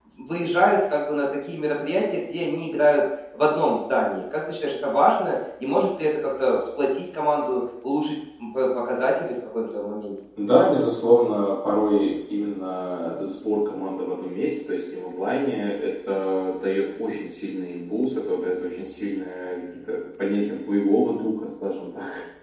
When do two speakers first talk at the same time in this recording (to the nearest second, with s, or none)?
none